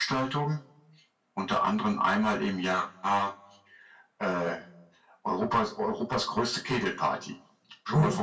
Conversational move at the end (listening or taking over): taking over